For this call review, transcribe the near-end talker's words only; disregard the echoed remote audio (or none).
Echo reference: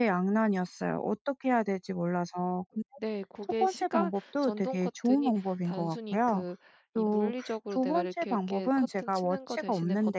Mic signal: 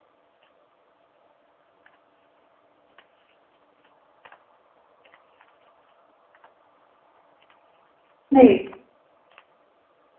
네.